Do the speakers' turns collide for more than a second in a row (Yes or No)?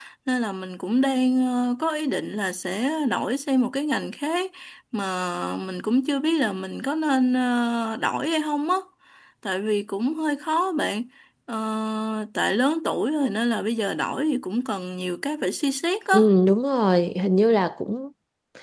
No